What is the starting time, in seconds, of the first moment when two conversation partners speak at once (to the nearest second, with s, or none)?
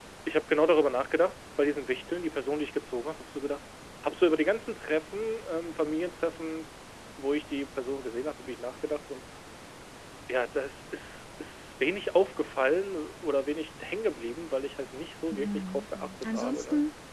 15 s